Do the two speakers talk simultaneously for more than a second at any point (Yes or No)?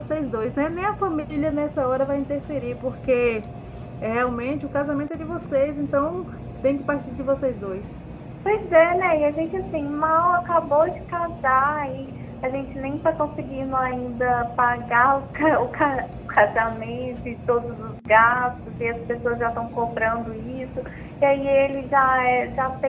No